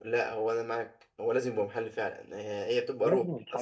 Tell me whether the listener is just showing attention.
Yes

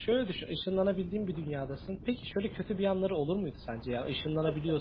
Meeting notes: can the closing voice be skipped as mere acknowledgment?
Yes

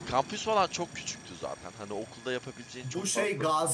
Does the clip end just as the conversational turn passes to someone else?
Yes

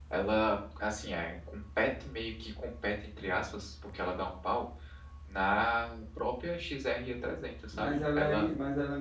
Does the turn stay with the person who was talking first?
No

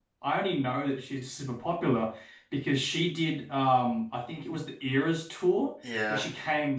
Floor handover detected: No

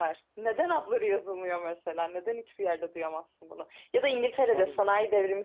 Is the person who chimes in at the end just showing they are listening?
Yes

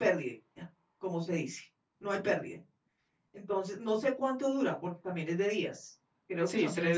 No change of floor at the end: No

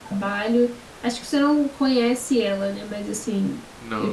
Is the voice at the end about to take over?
Yes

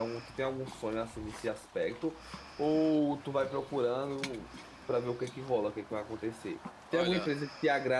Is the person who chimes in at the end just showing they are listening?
Yes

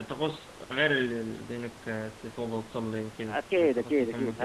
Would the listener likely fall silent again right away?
No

